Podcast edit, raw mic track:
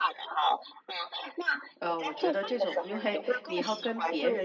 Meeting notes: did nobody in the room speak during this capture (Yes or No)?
No